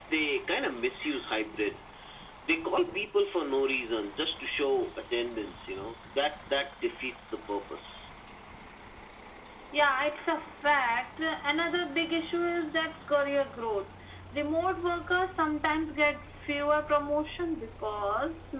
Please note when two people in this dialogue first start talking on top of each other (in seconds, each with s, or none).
none